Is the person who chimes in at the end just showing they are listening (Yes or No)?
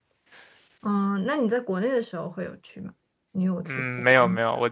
No